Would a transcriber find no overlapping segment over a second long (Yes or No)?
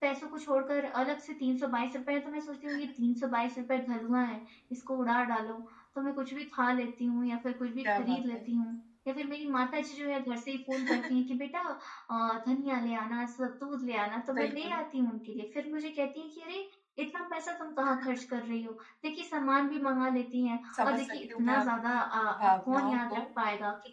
No